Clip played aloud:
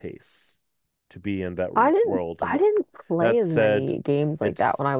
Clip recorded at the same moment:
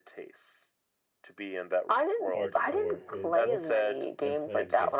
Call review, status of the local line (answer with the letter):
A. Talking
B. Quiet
A